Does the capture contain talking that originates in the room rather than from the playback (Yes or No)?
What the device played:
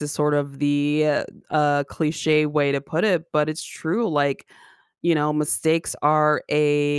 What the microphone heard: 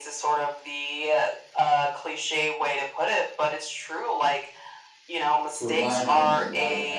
Yes